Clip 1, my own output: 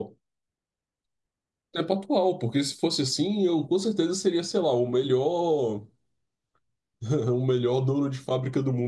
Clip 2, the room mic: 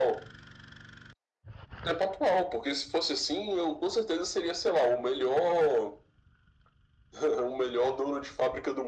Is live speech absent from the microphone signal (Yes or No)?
Yes